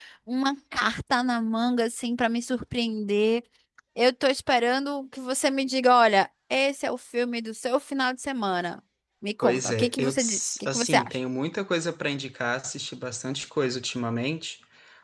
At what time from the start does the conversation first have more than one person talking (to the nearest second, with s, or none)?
9 s